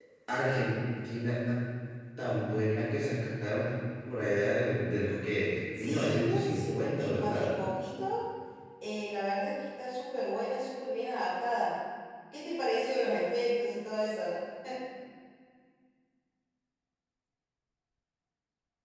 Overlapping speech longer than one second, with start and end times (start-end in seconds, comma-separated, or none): 5.8-7.5